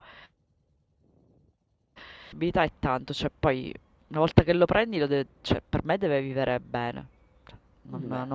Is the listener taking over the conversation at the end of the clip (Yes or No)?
No